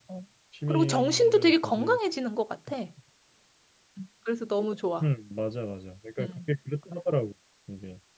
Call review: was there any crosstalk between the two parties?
Yes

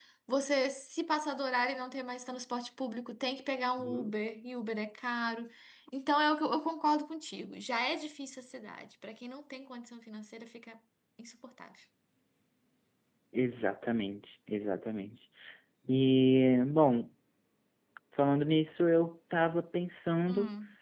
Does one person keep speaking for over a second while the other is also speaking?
No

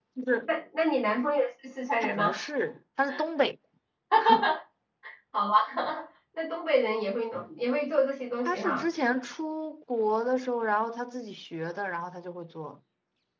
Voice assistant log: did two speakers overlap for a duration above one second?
No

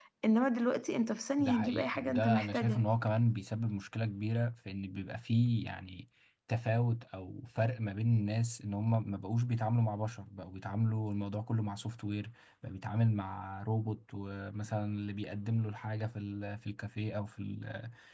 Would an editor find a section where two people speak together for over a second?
Yes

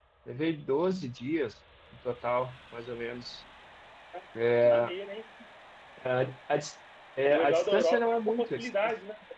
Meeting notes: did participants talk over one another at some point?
Yes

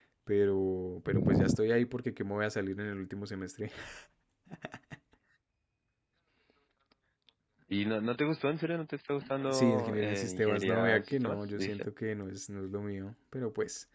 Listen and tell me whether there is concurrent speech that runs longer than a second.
Yes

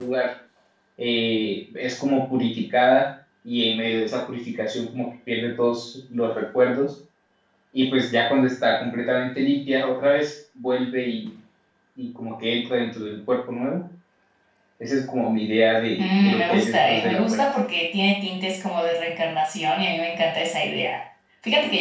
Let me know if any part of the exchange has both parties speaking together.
Yes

